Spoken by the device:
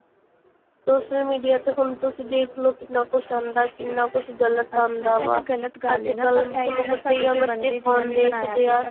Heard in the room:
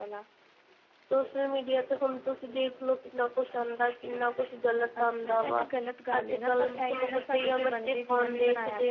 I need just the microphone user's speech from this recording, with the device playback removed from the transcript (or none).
none